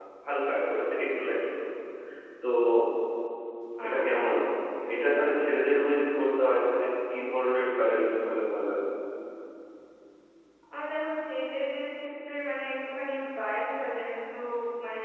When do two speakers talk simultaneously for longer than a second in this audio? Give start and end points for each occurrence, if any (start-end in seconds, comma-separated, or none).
none